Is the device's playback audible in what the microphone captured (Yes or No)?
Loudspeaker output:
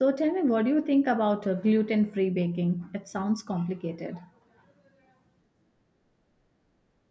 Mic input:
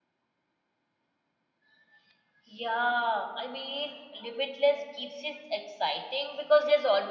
No